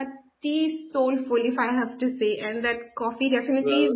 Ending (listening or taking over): listening